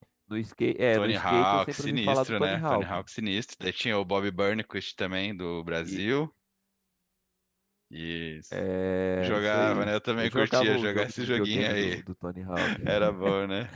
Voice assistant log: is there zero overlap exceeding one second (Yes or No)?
No